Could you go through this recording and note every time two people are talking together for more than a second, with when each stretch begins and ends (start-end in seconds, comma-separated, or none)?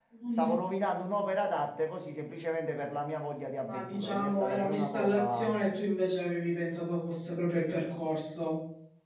3.7-5.5